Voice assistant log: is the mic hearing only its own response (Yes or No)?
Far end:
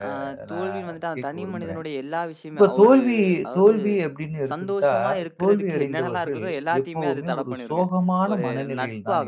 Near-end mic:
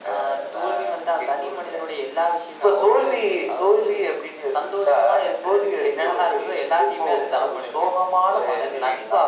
Yes